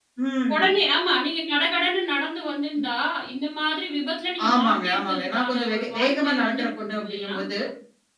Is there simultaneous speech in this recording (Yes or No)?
Yes